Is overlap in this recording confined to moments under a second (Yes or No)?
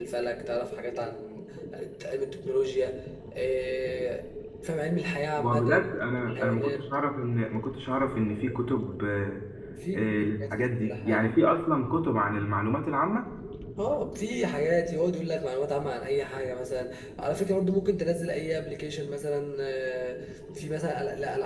No